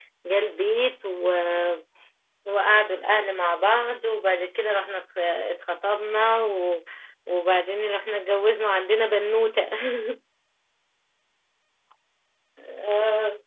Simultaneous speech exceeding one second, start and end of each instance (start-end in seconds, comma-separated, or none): none